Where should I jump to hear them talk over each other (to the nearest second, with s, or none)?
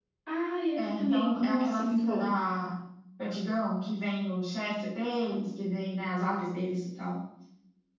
1 s